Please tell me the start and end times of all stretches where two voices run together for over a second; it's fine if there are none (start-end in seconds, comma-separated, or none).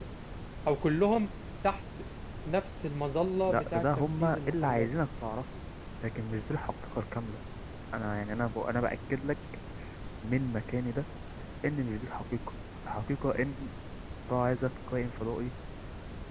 3.5-4.9